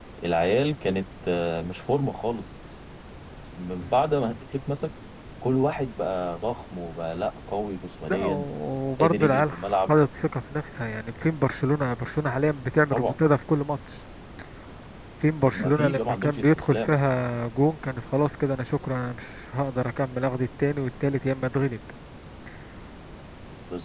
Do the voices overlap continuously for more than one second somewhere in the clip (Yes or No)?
Yes